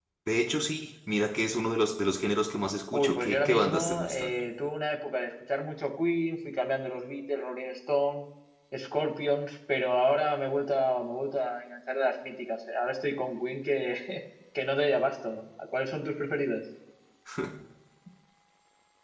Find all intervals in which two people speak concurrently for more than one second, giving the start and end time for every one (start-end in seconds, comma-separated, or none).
2.9-4.3